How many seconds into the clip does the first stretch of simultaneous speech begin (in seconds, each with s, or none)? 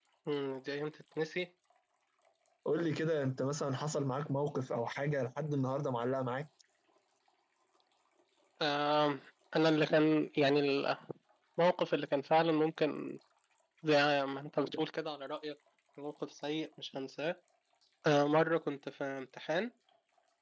none